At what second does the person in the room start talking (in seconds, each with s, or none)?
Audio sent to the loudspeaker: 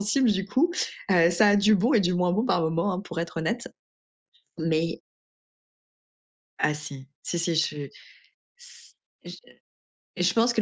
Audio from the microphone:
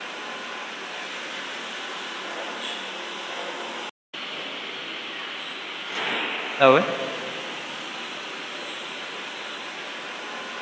6.6 s